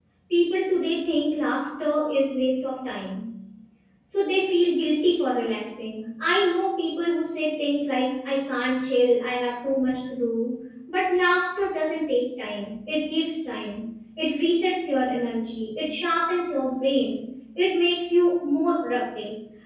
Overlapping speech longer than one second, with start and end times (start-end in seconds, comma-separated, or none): none